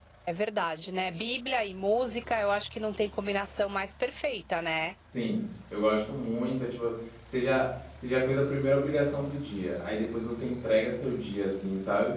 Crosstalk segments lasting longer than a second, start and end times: none

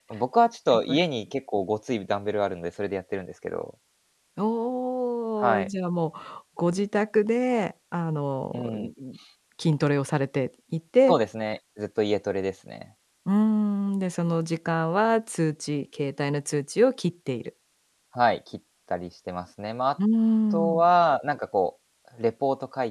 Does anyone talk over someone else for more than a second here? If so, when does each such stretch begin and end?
none

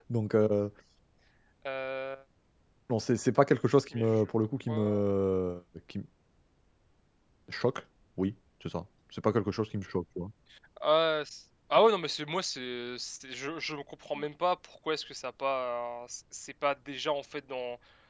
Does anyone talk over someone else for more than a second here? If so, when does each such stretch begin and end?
none

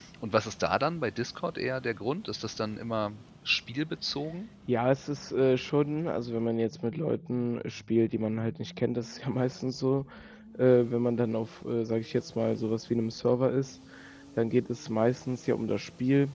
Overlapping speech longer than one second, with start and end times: none

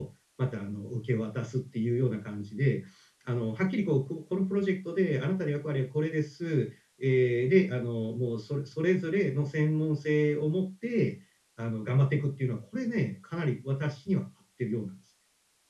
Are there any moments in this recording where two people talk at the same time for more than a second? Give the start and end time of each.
none

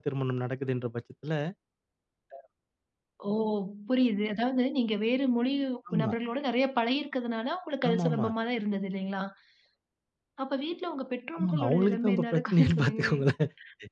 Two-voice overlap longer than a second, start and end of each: 11.4-13.2

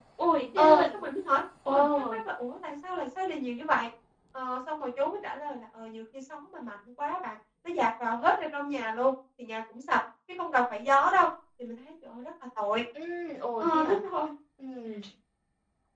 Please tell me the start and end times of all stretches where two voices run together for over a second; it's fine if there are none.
none

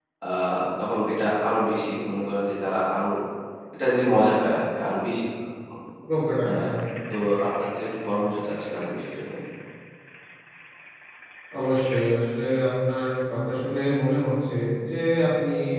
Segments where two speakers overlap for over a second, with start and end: none

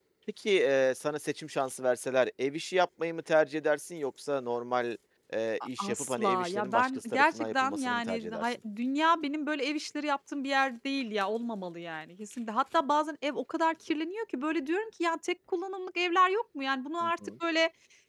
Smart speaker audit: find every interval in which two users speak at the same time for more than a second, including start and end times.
5.8-8.4

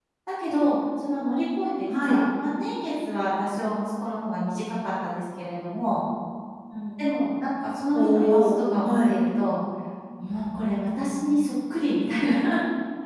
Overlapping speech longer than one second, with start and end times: 7.9-9.2

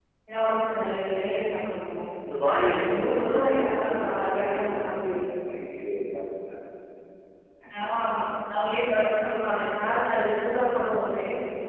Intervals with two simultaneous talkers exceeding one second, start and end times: 2.4-4.9

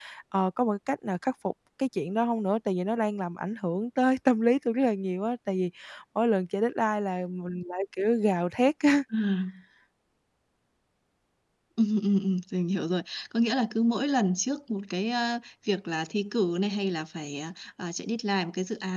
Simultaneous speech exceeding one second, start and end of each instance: none

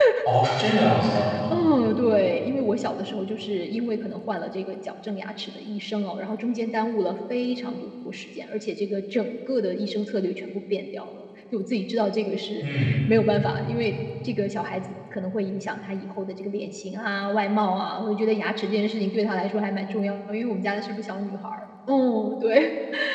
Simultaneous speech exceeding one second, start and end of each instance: none

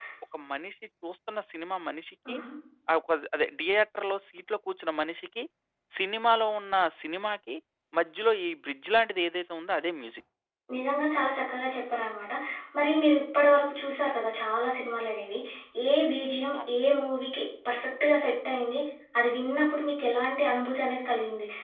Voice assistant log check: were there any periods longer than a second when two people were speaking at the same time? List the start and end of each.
none

